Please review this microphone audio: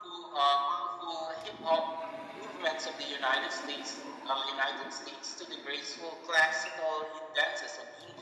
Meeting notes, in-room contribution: none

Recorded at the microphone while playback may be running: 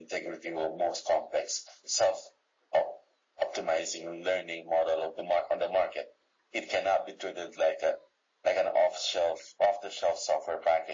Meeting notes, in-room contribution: none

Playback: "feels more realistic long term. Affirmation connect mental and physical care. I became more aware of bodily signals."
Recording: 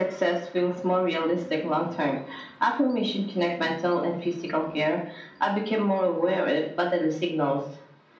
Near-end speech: none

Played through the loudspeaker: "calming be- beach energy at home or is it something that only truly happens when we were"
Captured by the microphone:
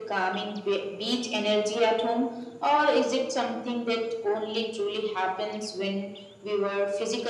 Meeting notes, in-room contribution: none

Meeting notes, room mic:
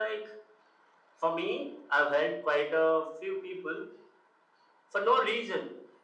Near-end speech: none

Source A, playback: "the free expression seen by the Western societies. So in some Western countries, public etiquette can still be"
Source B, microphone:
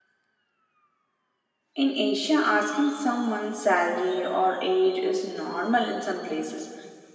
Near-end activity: present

